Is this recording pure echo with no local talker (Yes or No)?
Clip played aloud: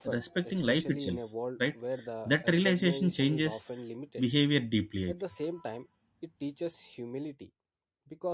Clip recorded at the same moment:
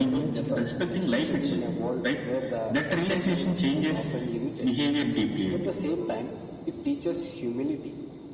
Yes